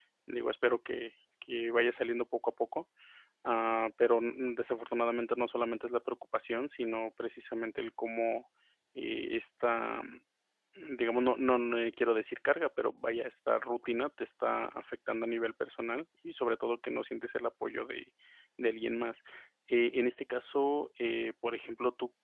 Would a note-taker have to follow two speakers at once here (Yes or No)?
No